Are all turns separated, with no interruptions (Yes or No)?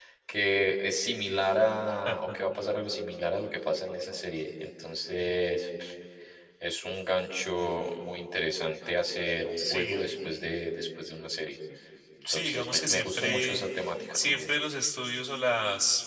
No